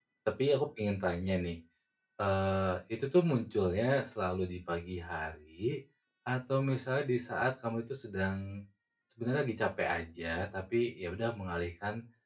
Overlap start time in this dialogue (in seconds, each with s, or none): none